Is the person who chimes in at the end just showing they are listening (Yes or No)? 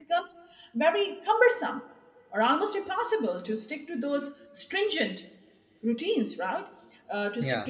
Yes